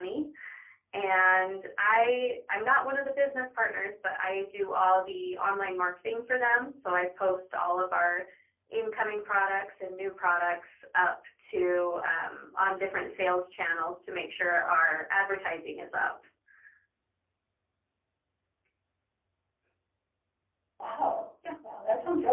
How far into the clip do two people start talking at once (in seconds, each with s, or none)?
none